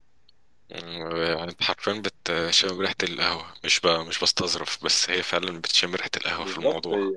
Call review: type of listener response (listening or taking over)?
taking over